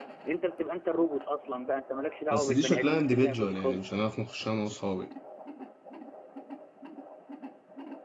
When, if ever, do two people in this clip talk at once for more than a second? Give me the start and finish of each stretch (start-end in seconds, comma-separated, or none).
2.3-3.9